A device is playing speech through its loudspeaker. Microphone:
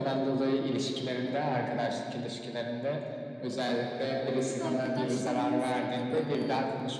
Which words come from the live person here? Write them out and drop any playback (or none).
Eee, ortak arkadaşlarımızla da böyle,